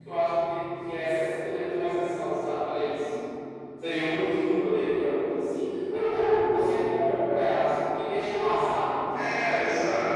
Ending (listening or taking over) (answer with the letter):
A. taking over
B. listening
A